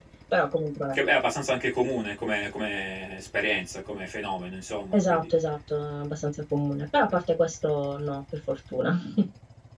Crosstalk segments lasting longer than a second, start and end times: none

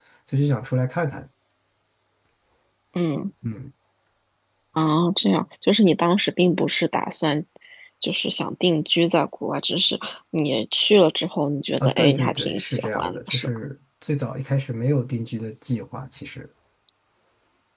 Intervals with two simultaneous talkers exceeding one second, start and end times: 11.8-13.6

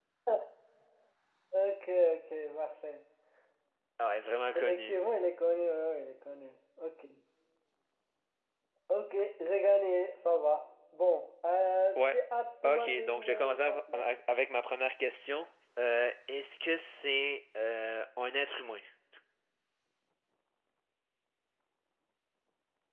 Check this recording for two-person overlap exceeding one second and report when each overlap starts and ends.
12.6-14.0

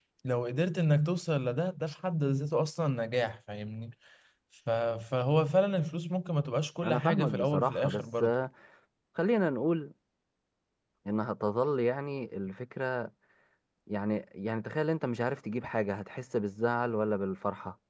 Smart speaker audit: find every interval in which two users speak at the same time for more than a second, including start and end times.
6.8-8.3

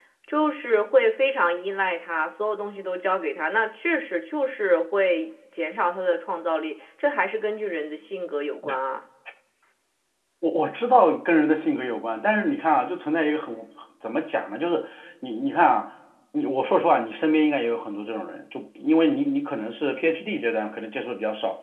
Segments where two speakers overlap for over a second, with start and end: none

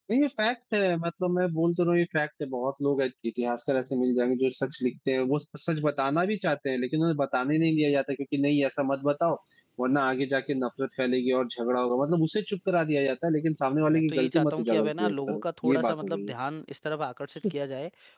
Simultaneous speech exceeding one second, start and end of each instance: 13.9-16.3

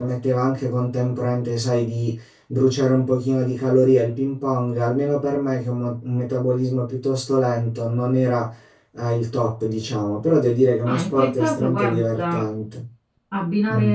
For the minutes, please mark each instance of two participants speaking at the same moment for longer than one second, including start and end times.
10.8-12.5

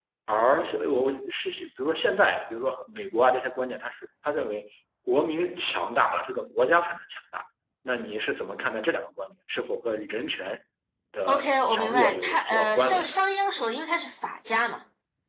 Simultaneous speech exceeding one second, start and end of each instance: 11.3-13.2

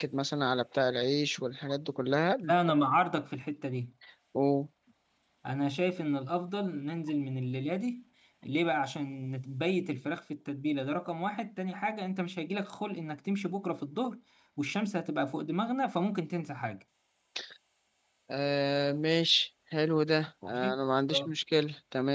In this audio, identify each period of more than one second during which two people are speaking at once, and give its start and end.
none

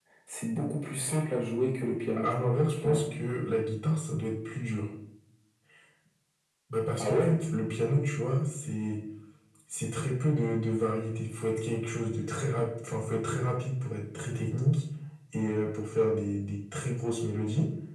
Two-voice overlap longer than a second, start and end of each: none

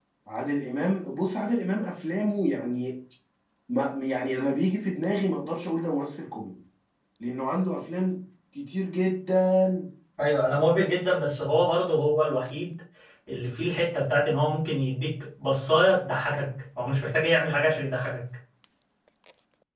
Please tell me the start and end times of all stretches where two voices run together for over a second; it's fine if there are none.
none

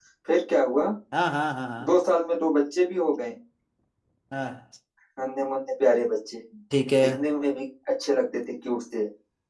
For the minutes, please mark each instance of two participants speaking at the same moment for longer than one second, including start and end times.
none

